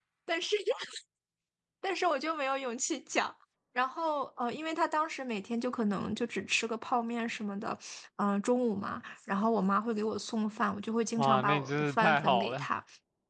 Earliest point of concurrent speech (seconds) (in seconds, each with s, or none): 11.2 s